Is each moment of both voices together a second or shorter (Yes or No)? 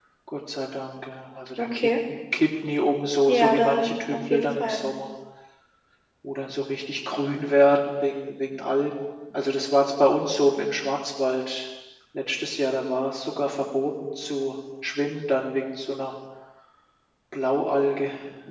No